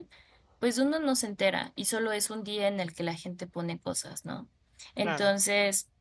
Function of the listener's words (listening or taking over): listening